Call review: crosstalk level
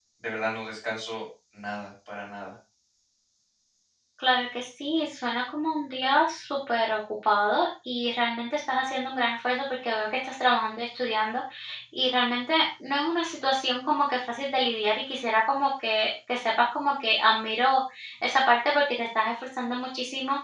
none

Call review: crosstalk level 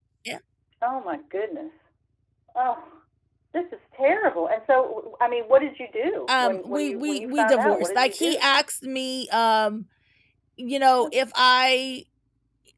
present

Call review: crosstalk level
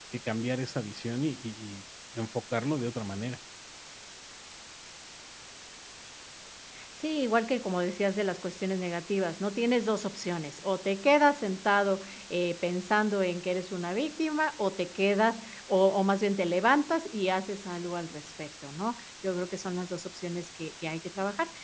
none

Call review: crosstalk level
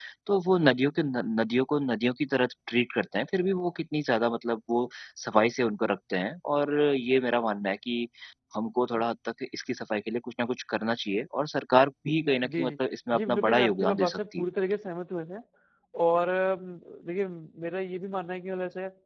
present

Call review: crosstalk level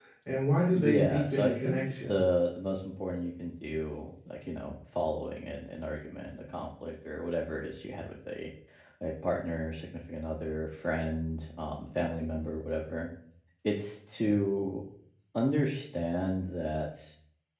present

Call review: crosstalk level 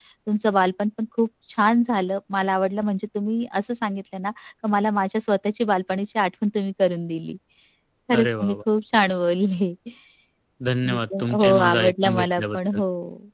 present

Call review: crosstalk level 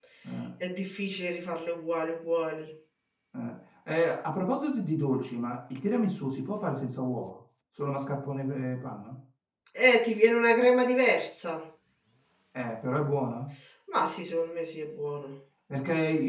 none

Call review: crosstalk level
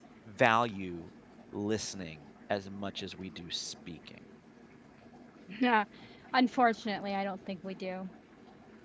none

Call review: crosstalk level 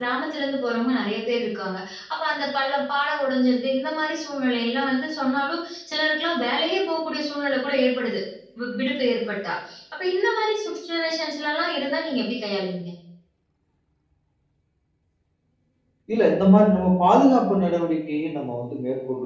none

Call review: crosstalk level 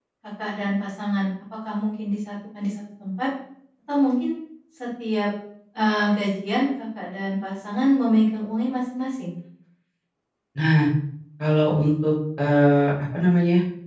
none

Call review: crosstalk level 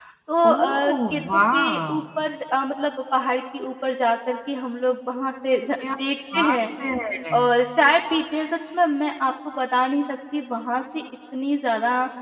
present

